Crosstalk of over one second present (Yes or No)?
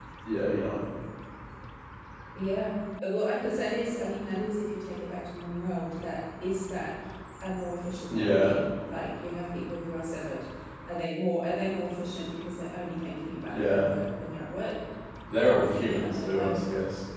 Yes